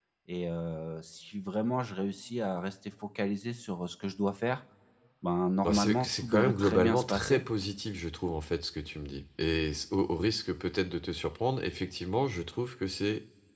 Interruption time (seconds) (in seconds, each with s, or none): 5.6 s